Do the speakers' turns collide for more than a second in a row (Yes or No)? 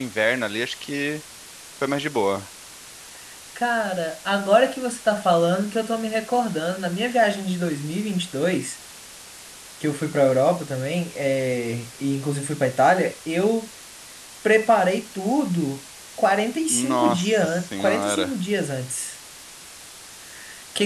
Yes